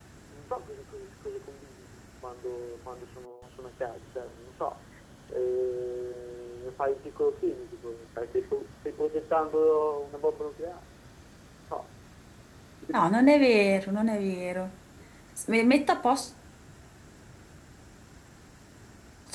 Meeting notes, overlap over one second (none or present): none